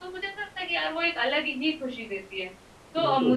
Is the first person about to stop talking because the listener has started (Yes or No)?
No